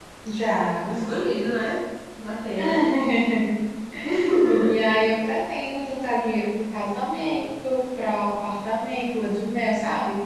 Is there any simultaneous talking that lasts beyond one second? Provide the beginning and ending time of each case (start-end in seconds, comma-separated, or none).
none